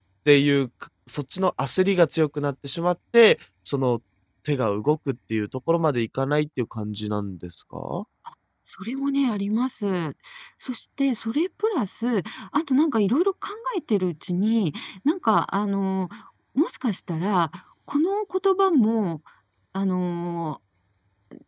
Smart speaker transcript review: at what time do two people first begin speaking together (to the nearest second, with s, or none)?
none